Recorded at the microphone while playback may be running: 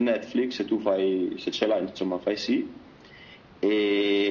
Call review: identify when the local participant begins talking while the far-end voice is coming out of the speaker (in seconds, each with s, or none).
none